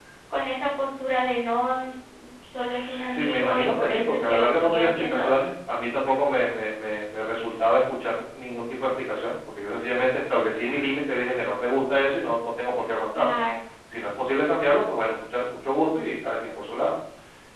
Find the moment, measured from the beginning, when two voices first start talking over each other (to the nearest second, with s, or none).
3 s